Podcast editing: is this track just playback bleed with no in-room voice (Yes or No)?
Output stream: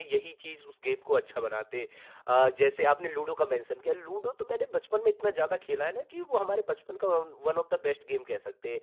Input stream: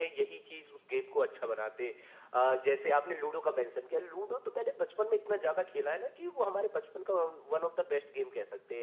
Yes